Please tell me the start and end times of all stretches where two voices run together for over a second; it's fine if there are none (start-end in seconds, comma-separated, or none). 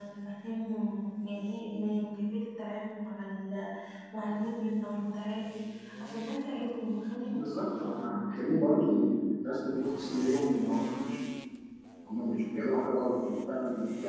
7.3-9.0